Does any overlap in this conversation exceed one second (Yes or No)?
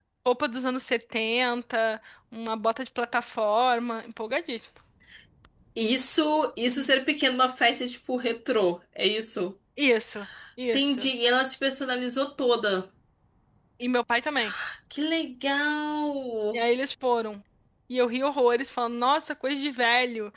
No